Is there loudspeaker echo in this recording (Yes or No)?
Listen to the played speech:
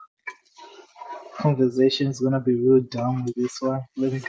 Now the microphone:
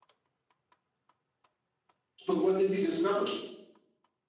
No